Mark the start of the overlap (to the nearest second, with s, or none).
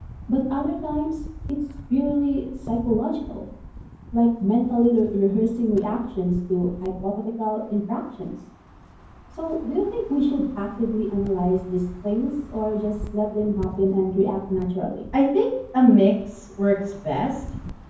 none